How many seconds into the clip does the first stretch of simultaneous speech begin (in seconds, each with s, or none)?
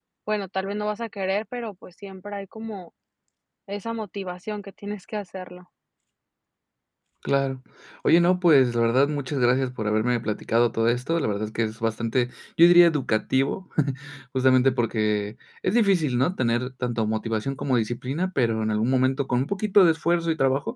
none